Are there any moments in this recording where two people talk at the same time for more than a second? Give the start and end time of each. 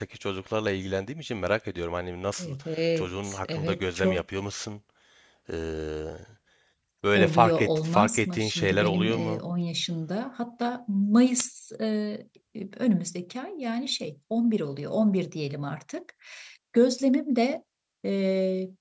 3.0-4.2, 7.2-9.4

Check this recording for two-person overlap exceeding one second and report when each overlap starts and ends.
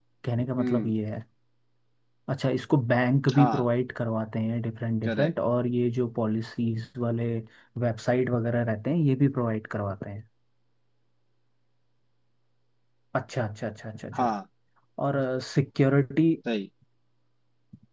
none

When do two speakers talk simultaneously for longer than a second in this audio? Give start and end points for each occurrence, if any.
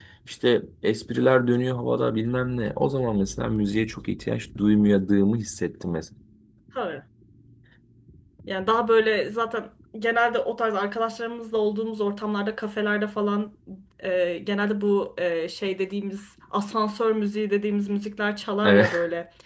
none

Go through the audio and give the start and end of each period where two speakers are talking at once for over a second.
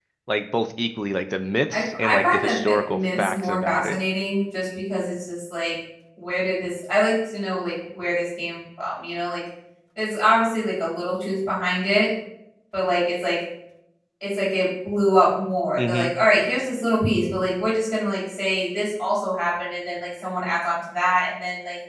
1.7-4.0

